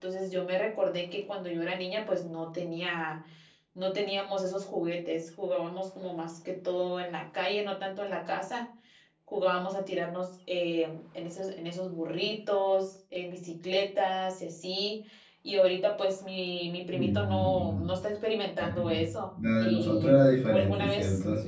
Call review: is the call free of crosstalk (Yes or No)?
No